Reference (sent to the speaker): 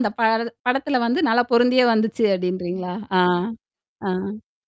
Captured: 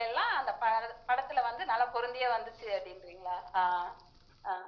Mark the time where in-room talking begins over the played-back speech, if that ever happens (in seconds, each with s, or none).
none